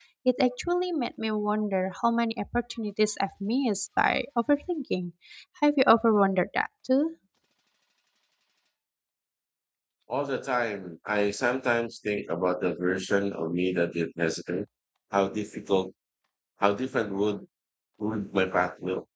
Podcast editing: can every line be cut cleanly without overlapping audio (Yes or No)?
Yes